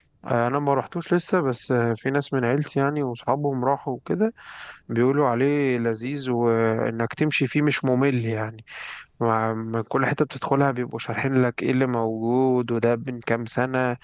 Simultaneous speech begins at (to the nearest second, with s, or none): none